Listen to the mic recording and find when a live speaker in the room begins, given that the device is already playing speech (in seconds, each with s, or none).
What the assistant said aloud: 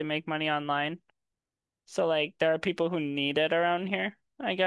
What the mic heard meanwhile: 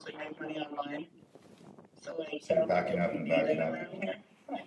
2.4 s